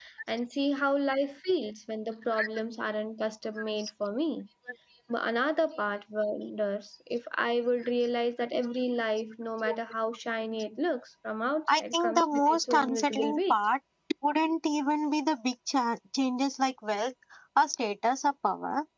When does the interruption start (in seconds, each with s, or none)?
11.7 s